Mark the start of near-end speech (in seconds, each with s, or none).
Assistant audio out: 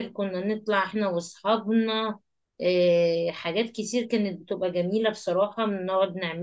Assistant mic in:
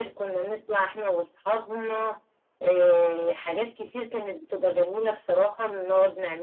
none